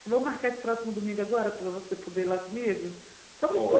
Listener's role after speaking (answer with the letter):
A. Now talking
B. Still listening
A